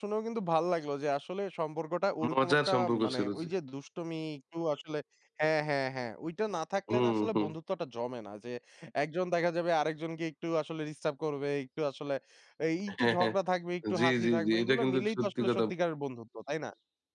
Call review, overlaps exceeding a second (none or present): present